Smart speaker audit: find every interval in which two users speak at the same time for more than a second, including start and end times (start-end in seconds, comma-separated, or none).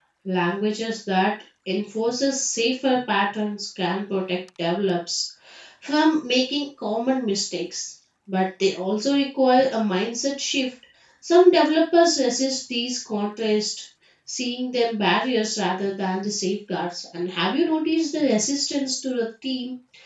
none